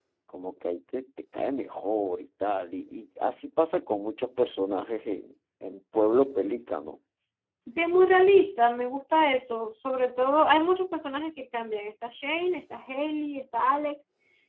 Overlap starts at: none

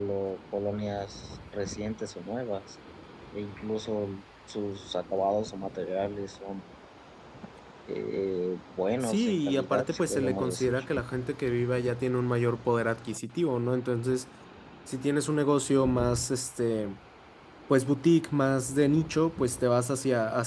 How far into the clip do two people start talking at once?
9.0 s

